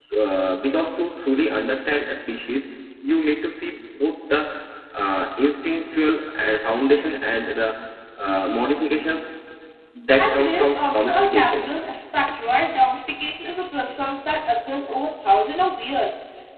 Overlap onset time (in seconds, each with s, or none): 10.2 s